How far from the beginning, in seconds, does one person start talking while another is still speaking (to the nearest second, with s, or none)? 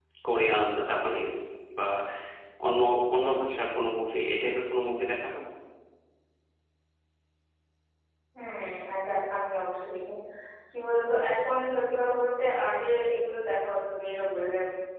none